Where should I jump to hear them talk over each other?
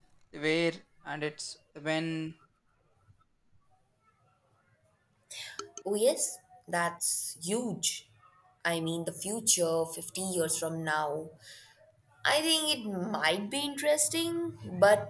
none

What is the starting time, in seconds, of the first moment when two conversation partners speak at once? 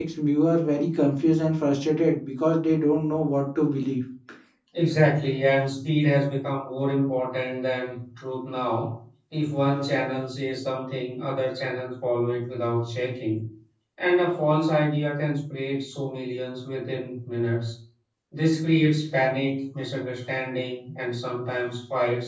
none

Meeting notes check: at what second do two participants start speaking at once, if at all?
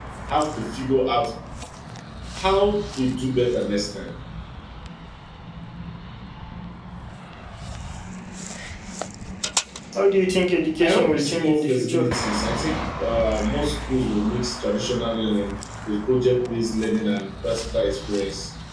10.8 s

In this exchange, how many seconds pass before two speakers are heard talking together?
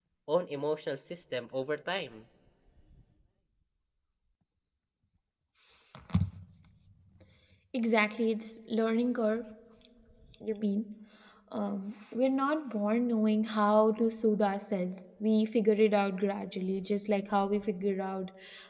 none

